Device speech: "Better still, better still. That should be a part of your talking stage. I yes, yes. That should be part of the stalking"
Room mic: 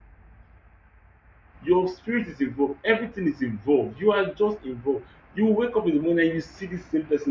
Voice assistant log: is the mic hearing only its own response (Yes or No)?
No